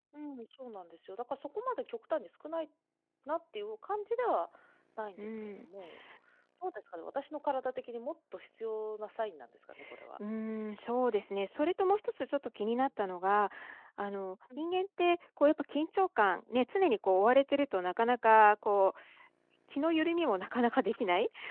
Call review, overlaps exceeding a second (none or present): none